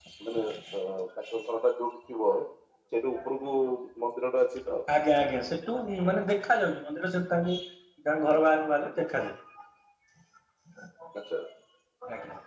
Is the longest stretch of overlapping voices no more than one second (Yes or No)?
Yes